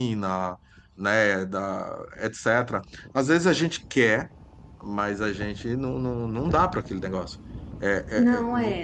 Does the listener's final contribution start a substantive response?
No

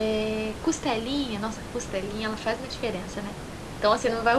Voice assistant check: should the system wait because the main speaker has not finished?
Yes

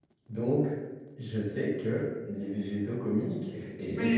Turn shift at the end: Yes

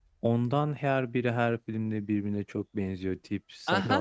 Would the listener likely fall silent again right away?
No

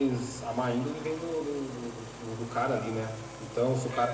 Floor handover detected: No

